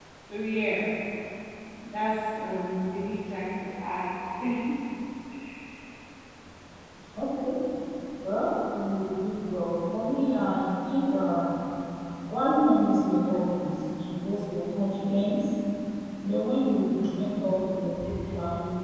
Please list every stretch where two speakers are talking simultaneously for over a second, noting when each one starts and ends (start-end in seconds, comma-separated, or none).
none